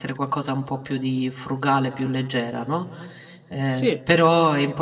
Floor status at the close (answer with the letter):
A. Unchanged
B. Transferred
A